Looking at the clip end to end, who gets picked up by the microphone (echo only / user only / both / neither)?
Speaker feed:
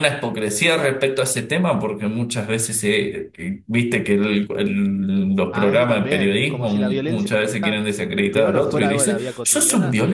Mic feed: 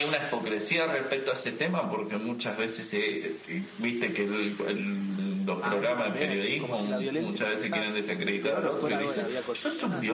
echo only